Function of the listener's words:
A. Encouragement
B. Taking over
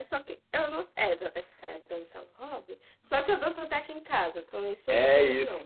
B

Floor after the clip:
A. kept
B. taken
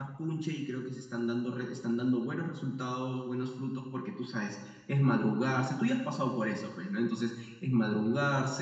A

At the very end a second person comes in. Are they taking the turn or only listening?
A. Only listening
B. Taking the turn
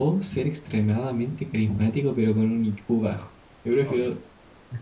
B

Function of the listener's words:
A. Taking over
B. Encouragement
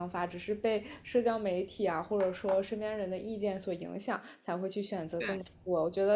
B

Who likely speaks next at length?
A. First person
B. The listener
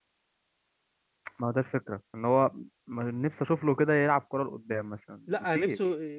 B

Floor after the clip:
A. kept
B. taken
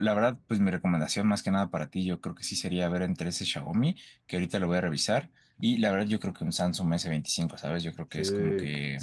B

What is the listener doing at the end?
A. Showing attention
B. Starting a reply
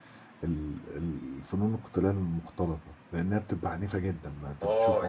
B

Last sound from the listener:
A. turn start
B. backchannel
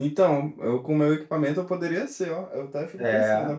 B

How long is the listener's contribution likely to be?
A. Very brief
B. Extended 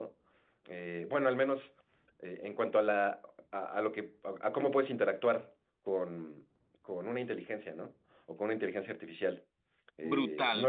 B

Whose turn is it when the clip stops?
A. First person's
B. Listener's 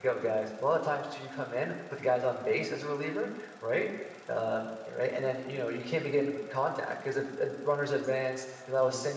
A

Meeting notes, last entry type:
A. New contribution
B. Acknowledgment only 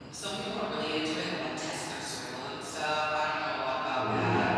B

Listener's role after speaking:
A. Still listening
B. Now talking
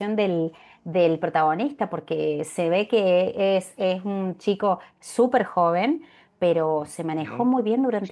A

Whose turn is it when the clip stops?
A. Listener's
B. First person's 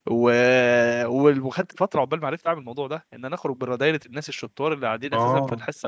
B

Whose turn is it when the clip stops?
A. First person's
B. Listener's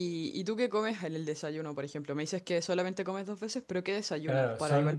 B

